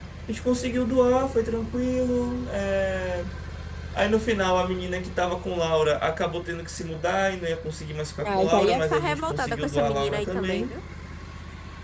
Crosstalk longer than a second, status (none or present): present